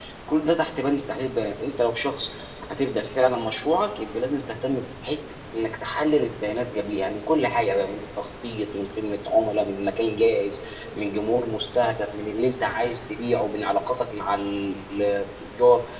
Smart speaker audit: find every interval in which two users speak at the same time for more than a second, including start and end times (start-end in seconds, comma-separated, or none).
none